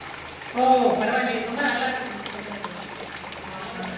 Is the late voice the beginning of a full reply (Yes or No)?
No